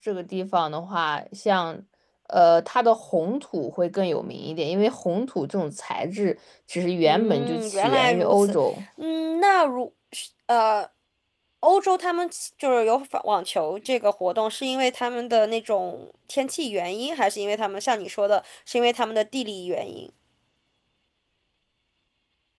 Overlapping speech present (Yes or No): Yes